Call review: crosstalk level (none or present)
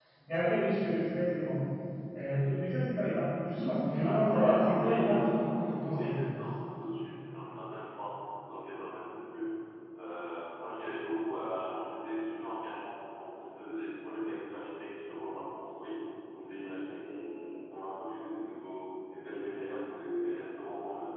present